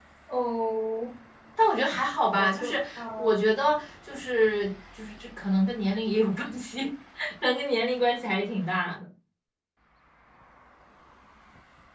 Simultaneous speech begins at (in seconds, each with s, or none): 2.4 s